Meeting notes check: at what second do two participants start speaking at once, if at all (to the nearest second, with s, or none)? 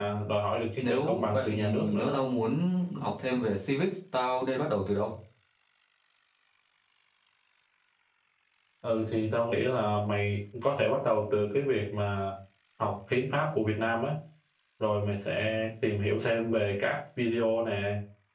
1 s